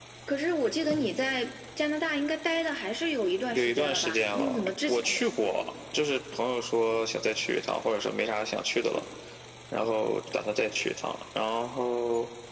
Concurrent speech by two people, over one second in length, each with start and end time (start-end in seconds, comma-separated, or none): 3.5-5.0